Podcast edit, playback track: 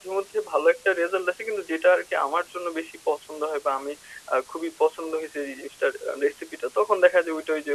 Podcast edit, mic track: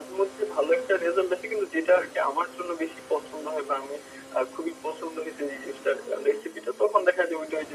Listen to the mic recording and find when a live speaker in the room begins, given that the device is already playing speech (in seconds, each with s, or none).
none